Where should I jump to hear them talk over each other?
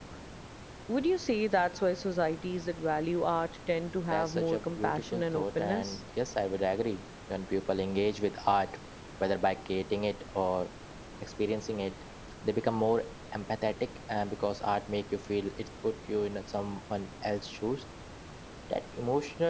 4.1 s

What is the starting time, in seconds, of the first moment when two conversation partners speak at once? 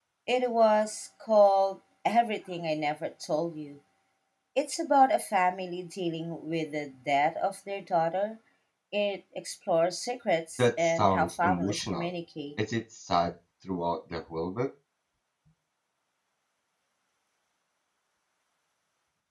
10.6 s

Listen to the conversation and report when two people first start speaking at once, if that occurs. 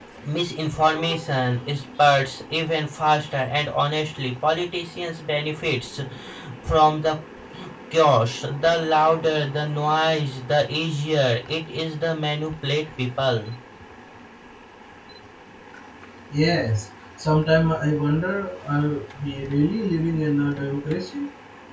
none

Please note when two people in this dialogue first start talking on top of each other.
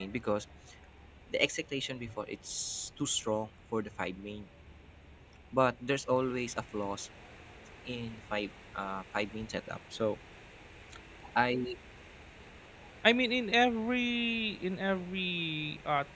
none

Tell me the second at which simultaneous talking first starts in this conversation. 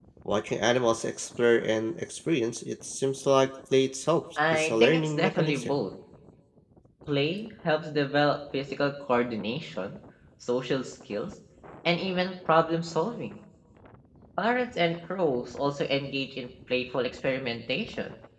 4.4 s

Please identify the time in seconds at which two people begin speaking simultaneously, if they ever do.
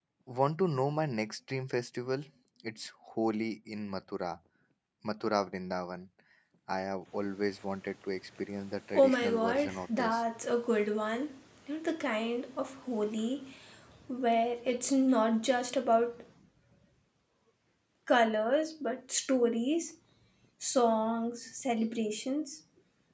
8.9 s

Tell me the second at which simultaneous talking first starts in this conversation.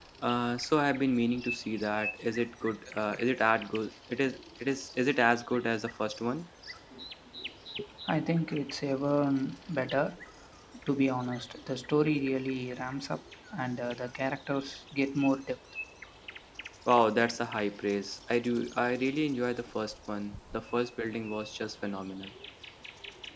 none

